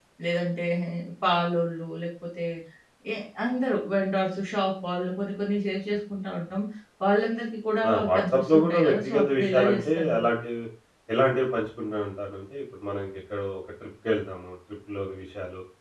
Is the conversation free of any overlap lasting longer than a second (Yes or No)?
No